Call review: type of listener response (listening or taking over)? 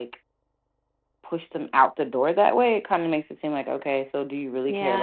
taking over